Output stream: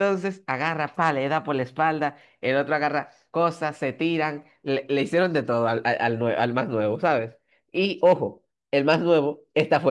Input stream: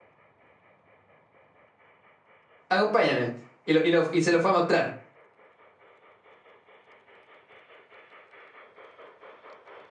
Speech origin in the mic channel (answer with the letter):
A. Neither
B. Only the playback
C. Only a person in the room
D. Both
C